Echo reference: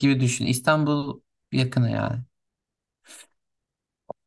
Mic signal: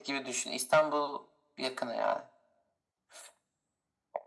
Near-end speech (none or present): none